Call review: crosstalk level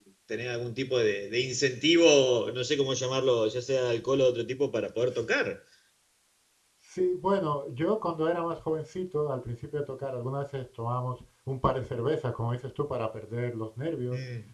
none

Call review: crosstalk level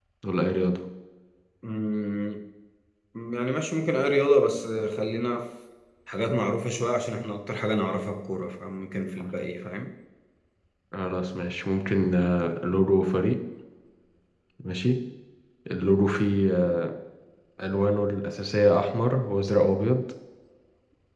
none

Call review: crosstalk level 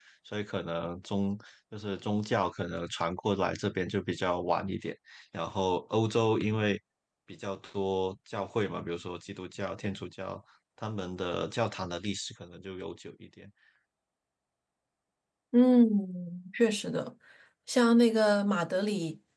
none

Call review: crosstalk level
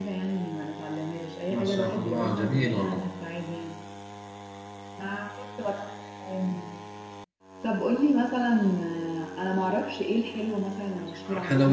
present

